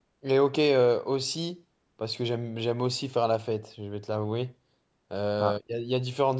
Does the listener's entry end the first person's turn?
No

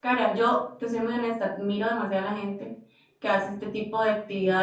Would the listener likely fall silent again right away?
Yes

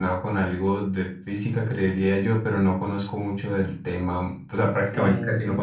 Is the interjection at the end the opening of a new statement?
No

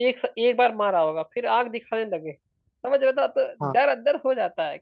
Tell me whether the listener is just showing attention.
Yes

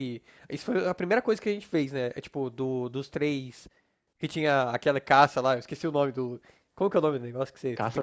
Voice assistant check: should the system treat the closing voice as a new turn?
Yes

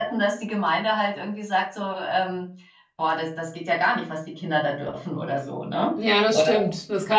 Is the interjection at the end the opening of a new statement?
Yes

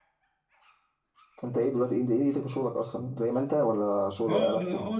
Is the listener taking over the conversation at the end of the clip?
Yes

